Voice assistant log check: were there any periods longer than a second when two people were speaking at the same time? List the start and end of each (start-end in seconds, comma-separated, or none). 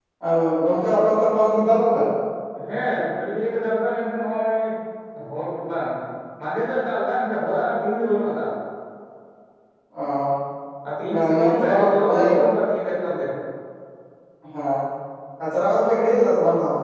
11.1-12.3